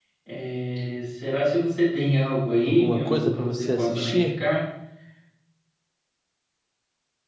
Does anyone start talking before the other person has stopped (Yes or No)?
Yes